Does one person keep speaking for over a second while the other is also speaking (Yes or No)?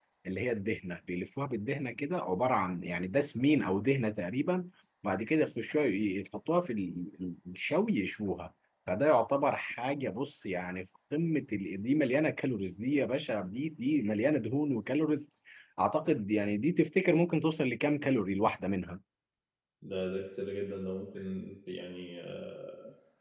No